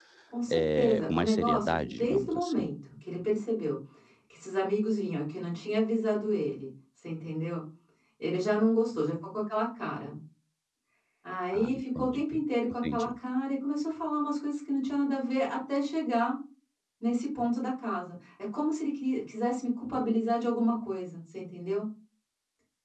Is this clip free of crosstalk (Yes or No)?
No